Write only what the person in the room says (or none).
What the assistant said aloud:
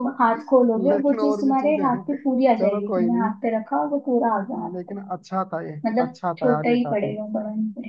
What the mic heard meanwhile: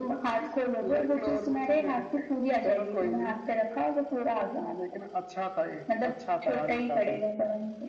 none